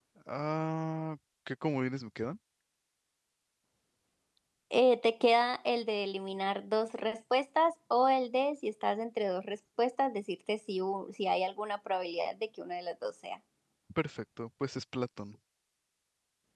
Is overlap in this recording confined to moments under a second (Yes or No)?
Yes